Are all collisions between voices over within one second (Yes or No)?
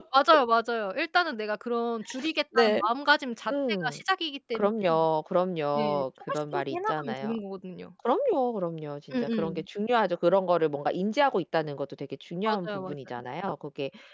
No